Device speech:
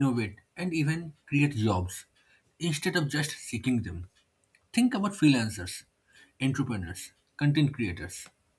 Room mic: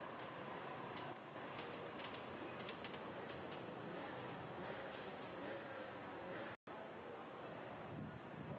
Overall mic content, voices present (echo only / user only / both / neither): neither